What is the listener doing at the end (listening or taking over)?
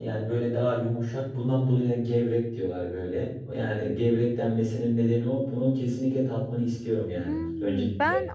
taking over